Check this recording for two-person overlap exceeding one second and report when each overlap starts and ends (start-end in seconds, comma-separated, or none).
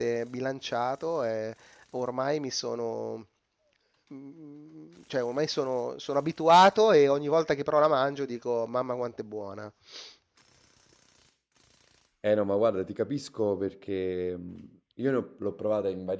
none